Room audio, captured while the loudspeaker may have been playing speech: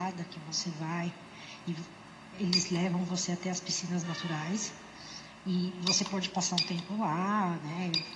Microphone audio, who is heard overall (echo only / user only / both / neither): echo only